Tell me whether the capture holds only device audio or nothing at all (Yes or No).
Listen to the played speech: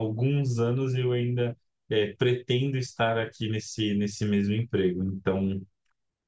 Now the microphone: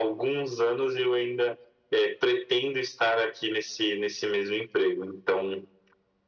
Yes